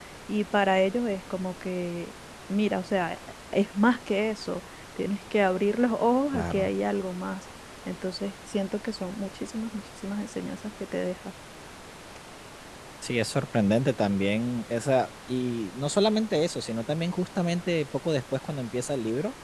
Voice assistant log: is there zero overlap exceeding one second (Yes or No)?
Yes